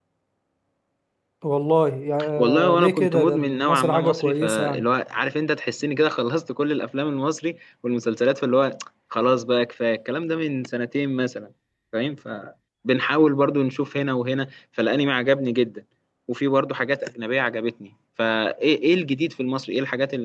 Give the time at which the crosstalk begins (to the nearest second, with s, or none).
2 s